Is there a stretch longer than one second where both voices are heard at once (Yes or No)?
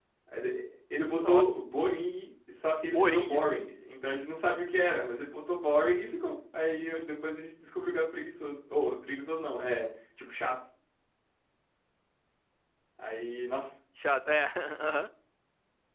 No